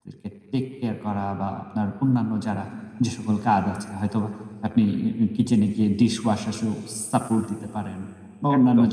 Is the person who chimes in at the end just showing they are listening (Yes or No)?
Yes